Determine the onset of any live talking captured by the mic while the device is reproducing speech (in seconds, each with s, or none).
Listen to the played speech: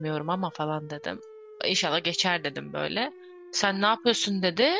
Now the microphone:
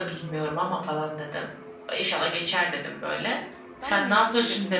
3.8 s